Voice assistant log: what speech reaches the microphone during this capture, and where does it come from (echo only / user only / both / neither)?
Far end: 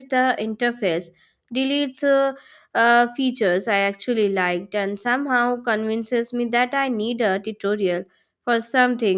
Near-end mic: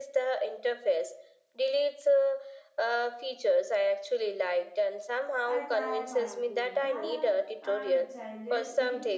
both